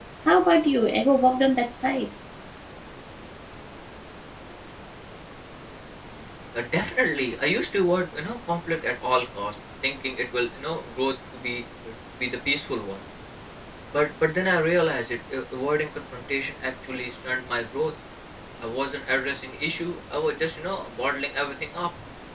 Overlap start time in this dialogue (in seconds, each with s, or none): none